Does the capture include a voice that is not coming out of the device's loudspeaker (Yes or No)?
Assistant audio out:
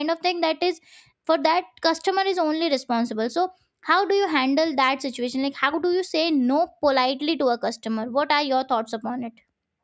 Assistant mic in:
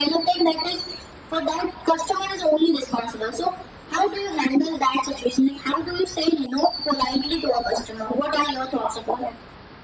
No